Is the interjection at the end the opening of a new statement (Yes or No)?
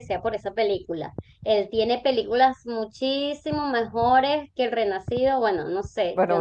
Yes